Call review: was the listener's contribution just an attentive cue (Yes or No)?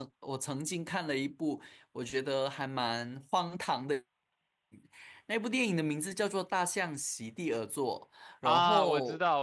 No